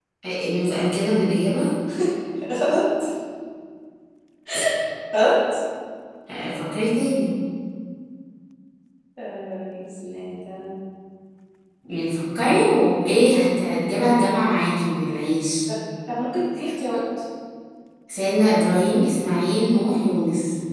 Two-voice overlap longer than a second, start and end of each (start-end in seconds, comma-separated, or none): none